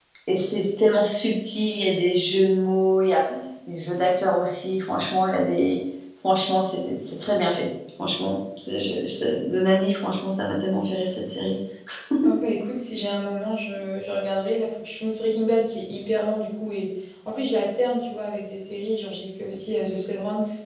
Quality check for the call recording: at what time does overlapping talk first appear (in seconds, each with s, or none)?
none